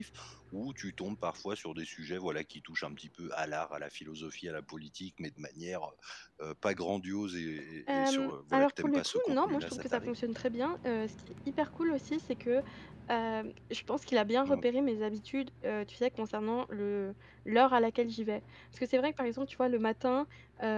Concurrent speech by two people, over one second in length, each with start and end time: 7.9-10.1

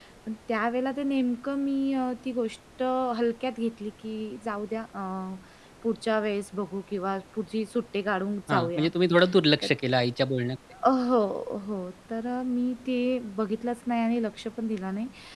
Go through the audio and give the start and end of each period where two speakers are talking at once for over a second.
none

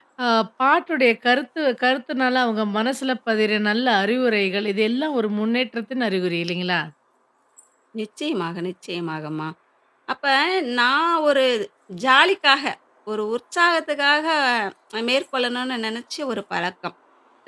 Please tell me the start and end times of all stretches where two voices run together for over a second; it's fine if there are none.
none

